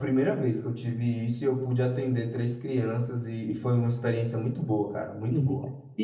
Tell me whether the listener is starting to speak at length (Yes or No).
Yes